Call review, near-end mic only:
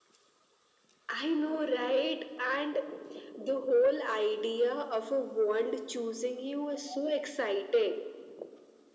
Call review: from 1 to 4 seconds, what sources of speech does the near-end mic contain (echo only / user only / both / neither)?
echo only